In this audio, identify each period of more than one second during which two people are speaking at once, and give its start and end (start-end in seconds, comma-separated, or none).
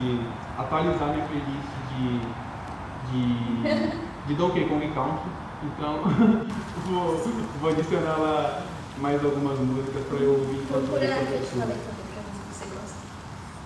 10.1-11.8